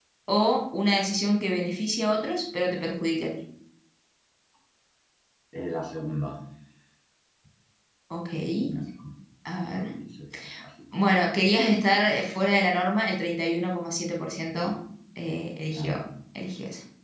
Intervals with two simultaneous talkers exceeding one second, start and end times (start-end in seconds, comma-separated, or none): none